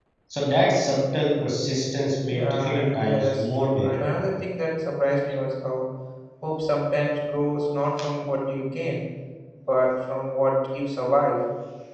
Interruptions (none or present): present